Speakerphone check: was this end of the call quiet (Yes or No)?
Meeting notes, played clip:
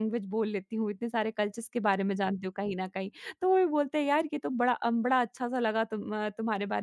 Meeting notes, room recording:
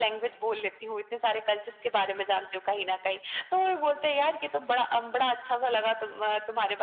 Yes